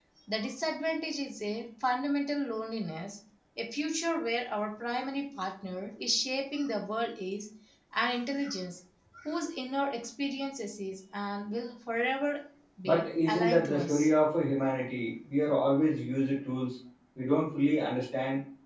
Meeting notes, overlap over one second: present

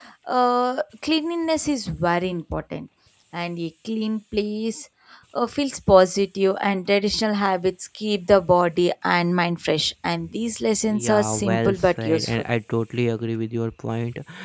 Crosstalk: present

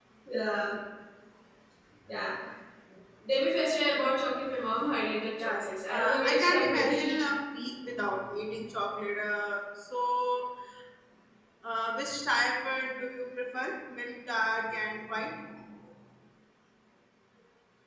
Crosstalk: present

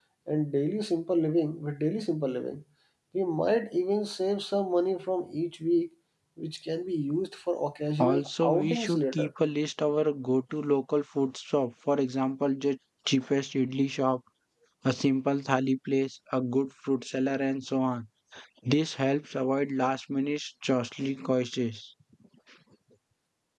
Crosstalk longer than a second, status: present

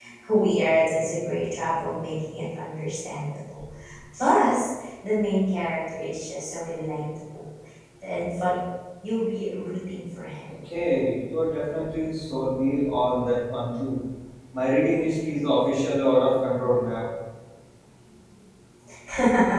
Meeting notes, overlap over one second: none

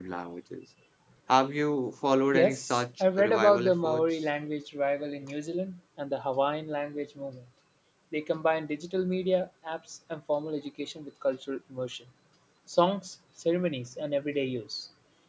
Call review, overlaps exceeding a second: present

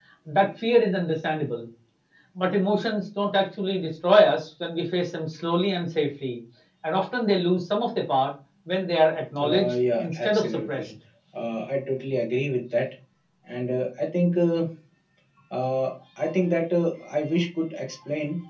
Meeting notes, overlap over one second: present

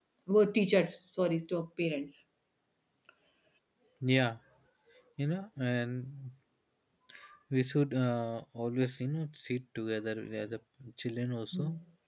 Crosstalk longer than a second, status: none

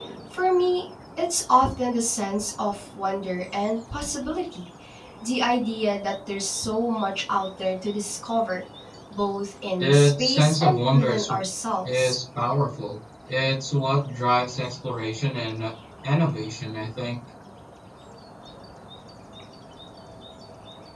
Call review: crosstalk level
present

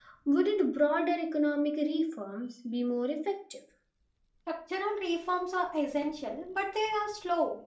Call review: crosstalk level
none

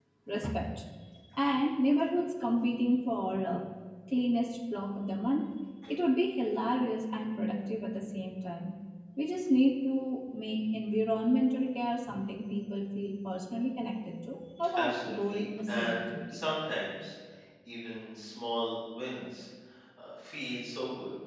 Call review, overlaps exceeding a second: present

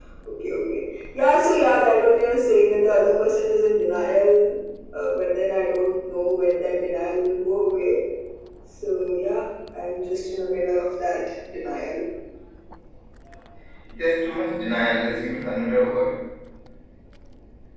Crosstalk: none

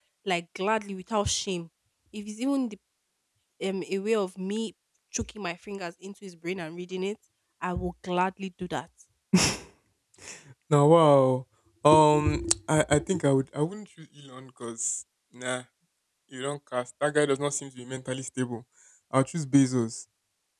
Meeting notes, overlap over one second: none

